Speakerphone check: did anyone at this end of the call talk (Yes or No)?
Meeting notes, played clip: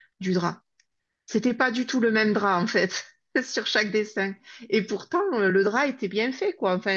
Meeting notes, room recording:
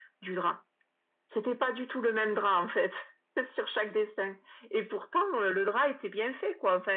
No